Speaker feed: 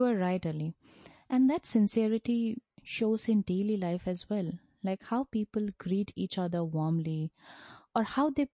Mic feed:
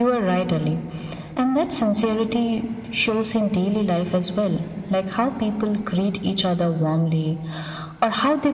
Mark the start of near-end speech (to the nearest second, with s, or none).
none